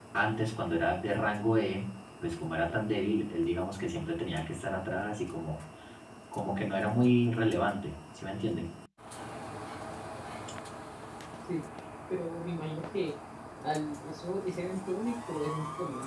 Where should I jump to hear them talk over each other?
none

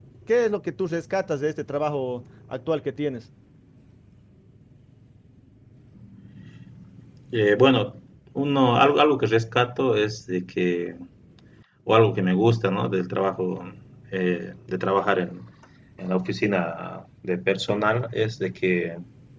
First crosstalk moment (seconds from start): none

